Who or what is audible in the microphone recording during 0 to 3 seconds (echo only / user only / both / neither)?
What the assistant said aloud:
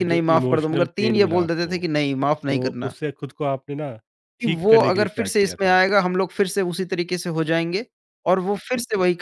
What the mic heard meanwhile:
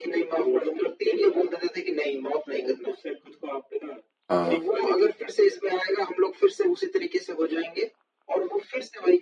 echo only